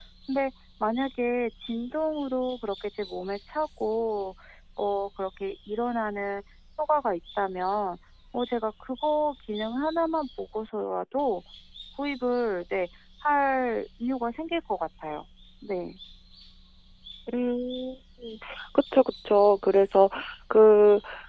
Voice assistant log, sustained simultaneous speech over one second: none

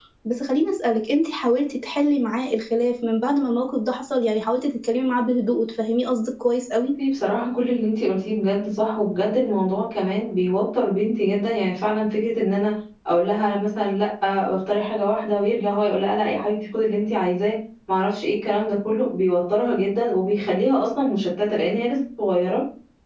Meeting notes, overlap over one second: none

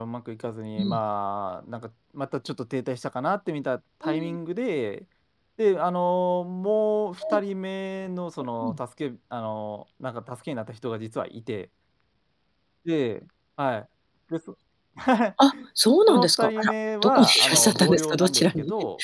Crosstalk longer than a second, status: present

